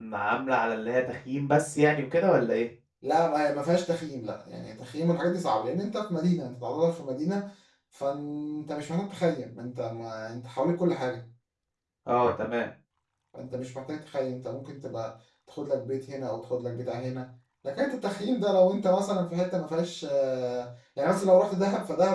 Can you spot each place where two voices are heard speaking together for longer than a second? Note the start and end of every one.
none

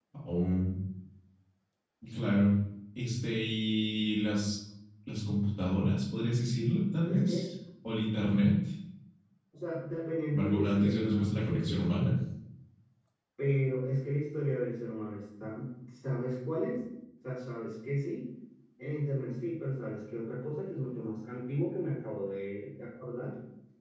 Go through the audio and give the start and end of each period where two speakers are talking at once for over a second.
10.3-12.2

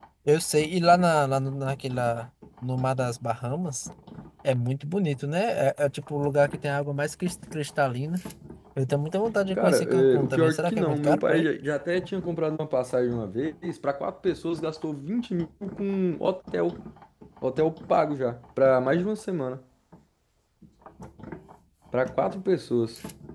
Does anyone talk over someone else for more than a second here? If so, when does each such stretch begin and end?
9.5-11.4

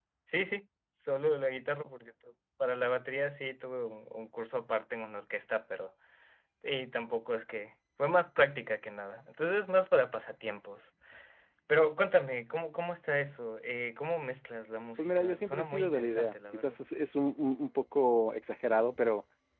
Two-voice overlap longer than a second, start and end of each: 15.0-16.7

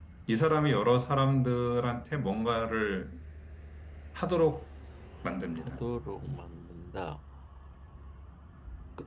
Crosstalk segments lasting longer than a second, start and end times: none

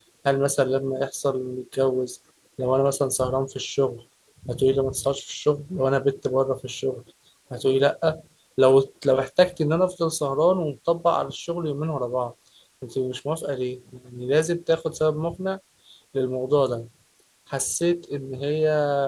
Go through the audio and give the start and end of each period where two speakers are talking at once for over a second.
none

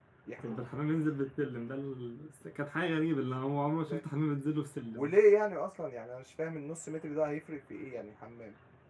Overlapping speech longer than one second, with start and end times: none

